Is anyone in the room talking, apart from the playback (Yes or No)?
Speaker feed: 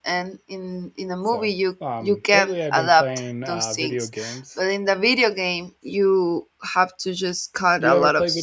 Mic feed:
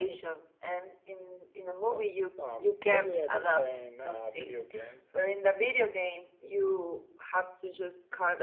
No